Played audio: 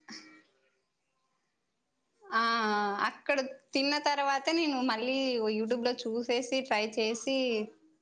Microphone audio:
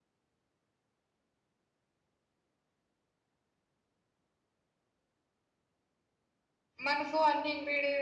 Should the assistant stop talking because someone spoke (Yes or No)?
Yes